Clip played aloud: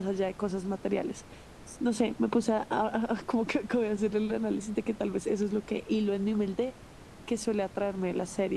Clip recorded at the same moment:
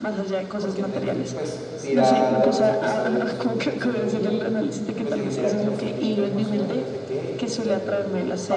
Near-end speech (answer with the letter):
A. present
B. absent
A